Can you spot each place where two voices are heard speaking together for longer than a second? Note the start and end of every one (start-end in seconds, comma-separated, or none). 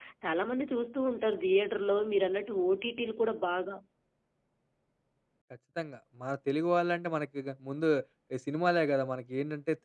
none